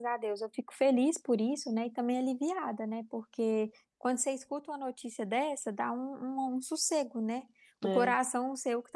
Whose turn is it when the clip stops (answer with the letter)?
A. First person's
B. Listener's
A